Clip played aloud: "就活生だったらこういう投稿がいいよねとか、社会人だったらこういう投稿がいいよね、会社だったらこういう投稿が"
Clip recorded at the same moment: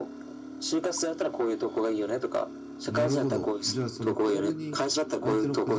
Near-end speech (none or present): present